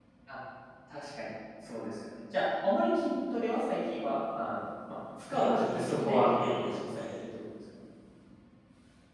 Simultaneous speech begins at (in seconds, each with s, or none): 5.3 s